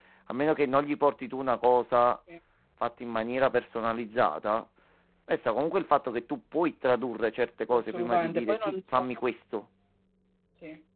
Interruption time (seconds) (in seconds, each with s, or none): 7.7 s